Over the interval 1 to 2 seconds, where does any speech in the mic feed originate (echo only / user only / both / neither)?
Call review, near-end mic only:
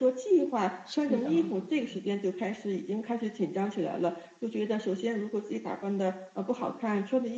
both